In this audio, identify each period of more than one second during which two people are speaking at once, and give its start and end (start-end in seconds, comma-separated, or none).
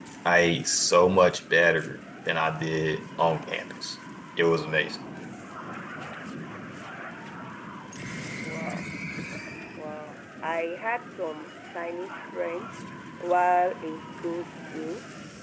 none